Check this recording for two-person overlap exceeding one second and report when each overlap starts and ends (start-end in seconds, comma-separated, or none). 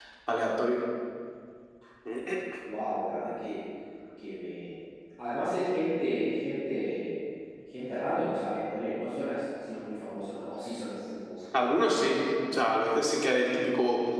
none